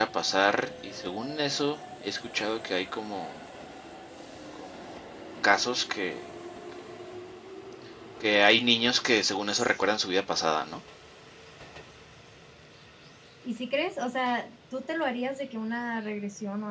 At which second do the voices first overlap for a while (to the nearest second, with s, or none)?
none